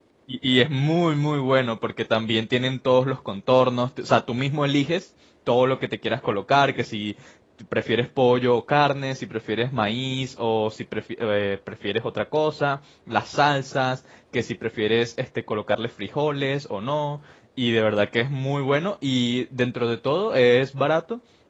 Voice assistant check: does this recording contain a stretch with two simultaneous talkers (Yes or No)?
No